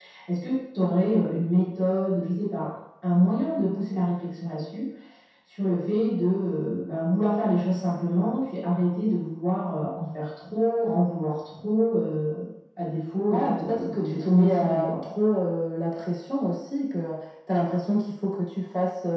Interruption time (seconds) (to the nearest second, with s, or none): 13 s